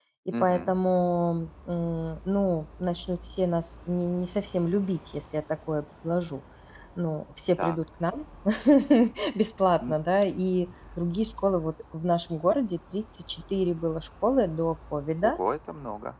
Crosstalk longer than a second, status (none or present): none